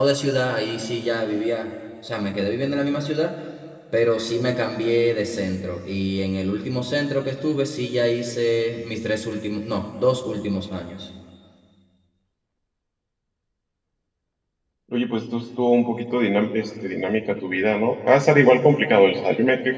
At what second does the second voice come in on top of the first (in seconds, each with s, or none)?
none